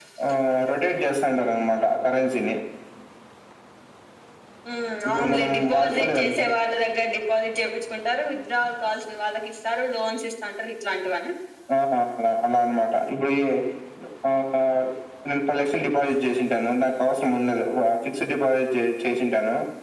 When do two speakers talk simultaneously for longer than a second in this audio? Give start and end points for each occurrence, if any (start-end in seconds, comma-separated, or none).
5.1-6.4